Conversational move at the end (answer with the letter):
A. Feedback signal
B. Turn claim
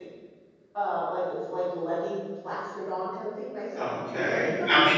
B